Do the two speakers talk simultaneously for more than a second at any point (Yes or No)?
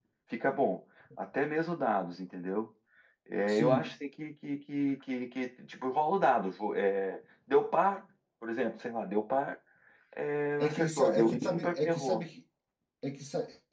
Yes